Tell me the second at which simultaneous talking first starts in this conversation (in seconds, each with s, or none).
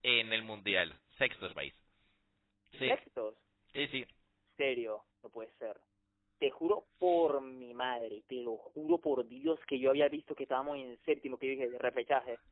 none